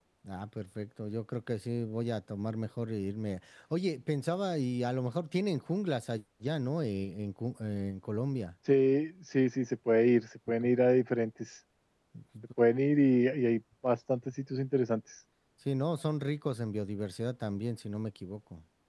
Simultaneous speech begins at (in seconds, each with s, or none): none